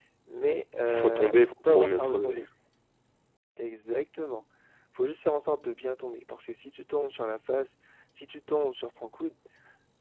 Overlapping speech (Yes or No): Yes